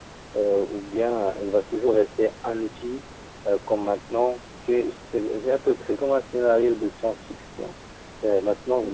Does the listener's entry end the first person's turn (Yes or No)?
No